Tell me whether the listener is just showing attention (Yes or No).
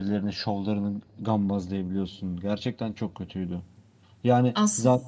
Yes